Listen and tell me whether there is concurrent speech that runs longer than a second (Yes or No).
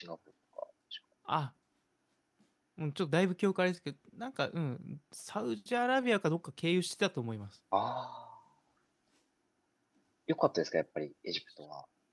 No